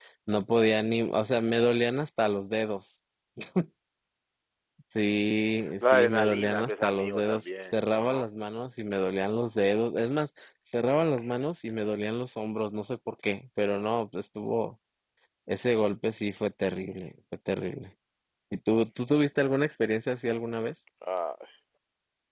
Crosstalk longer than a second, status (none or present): present